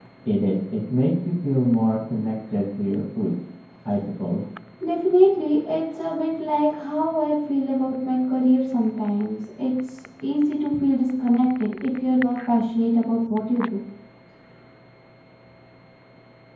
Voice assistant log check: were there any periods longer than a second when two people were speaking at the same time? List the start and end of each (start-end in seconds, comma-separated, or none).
none